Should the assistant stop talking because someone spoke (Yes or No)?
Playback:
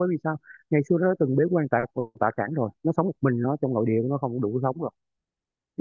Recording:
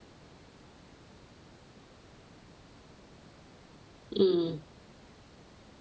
Yes